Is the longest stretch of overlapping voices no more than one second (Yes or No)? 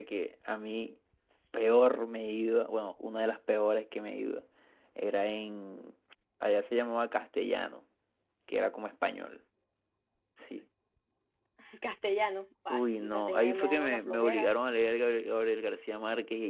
No